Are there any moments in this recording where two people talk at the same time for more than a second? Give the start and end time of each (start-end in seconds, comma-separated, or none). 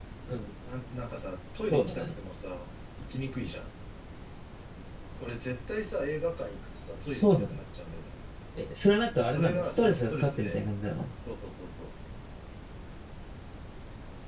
9.2-10.6